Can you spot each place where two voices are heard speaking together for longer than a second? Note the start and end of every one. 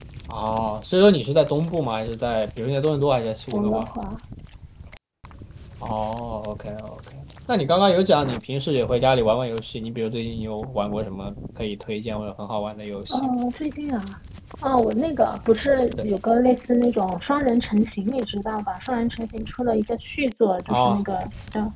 none

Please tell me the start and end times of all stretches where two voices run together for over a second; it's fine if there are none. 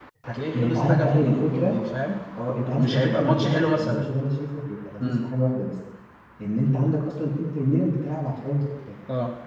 0.5-1.8, 2.7-4.0

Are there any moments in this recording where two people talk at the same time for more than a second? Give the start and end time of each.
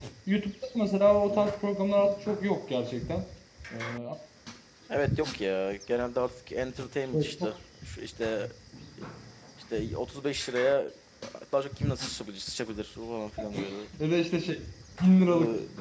none

